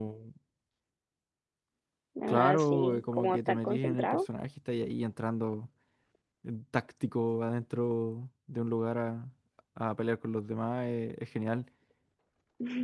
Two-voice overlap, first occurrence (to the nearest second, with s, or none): 2 s